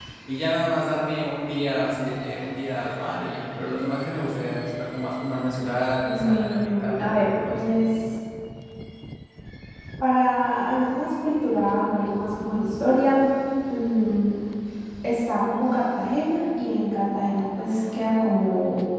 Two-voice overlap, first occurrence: 6.0 s

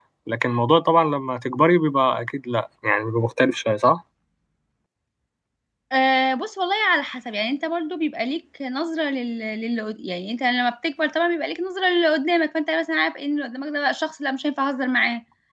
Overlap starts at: none

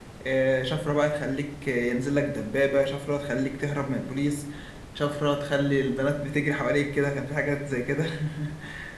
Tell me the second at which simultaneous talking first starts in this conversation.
none

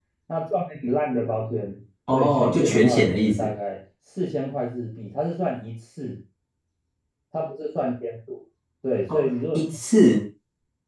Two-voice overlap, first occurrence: 2.1 s

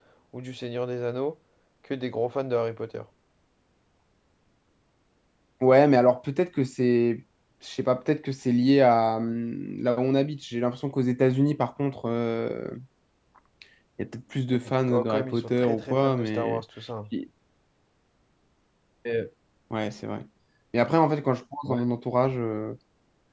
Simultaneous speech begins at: 14.5 s

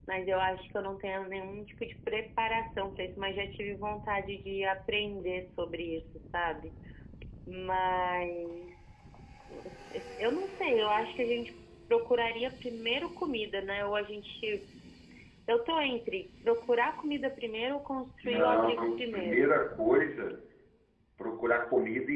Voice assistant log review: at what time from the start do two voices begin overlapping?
18.2 s

